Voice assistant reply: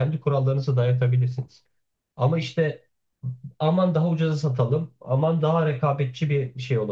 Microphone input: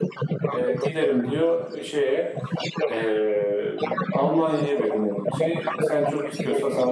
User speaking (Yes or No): Yes